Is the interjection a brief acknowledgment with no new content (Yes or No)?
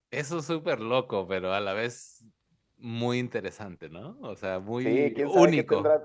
No